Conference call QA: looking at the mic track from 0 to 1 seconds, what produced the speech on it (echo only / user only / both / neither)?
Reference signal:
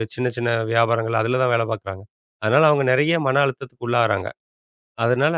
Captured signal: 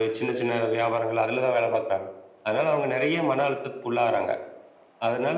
echo only